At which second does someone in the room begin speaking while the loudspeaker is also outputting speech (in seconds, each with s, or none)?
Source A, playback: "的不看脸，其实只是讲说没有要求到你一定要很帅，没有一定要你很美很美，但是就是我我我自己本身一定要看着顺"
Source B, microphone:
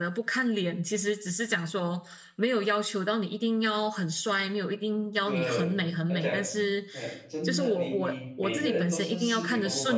5.3 s